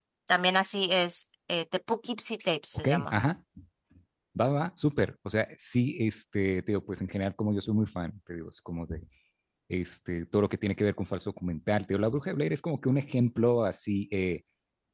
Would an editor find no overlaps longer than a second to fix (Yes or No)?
Yes